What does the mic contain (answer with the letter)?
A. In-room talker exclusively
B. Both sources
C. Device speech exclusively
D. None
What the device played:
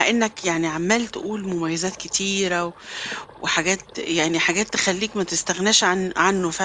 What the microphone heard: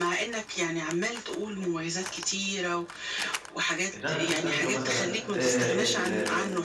B